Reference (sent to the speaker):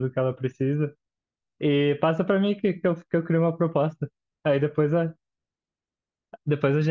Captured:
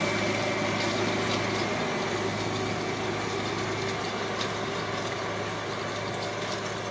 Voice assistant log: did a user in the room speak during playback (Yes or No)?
No